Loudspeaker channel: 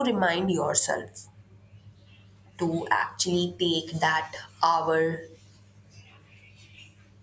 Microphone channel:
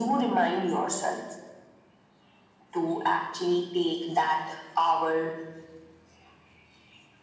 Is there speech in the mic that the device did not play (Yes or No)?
No